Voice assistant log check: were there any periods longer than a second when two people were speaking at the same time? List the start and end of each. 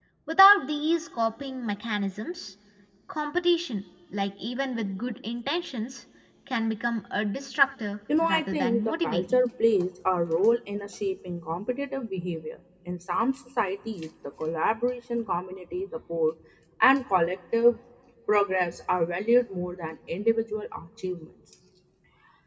8.2-9.4

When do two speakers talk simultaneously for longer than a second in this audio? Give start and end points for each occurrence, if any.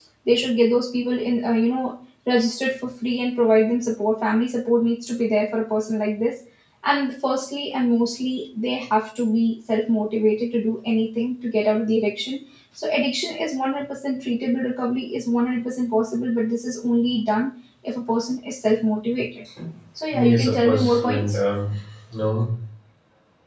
20.1-21.4

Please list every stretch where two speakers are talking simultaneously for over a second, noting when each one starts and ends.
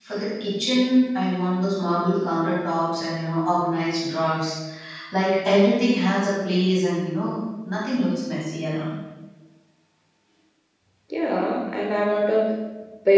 none

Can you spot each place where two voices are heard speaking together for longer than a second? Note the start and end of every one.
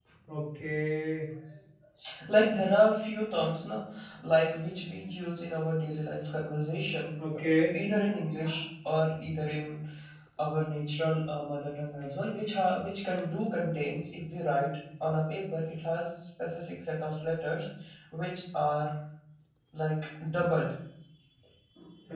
none

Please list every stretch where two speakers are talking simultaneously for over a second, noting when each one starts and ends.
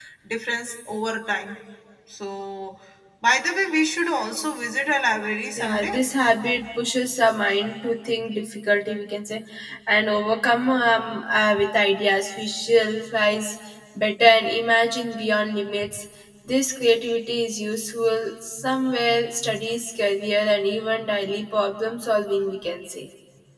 none

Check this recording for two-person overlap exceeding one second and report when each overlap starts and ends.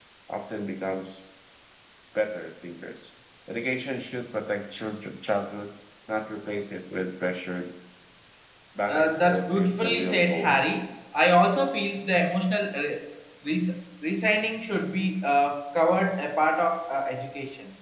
8.9-10.6

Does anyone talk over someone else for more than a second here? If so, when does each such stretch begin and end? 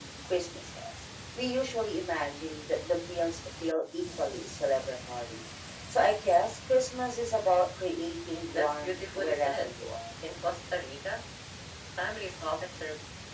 8.5-9.8

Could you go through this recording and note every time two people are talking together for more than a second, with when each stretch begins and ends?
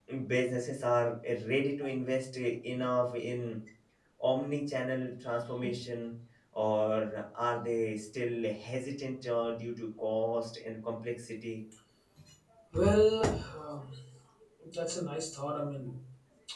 none

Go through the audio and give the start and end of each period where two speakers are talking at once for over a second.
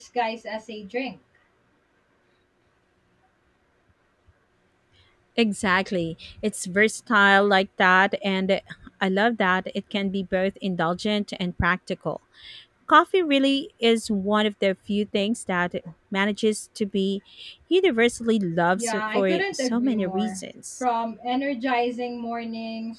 18.8-20.4

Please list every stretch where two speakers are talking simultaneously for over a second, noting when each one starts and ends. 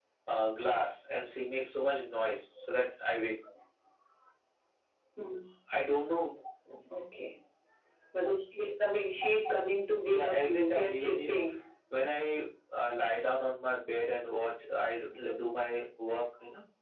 10.1-11.4

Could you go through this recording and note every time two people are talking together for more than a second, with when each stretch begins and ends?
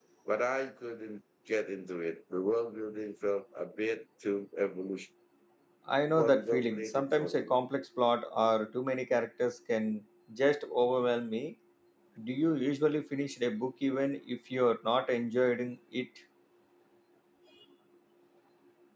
6.2-7.5

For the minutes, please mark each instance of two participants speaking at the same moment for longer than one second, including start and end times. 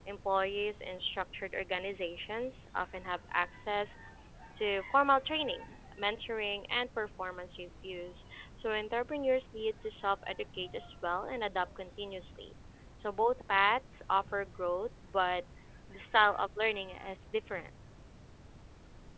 none

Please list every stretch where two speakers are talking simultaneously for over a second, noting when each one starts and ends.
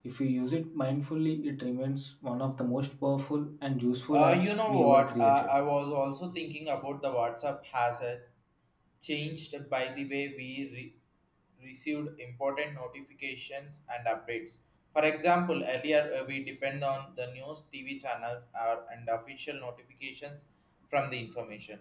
4.1-5.5

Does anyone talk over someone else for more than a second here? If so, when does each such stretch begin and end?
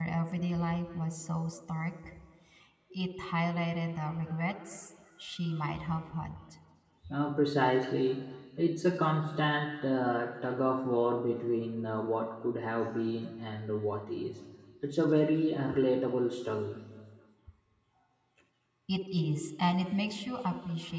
none

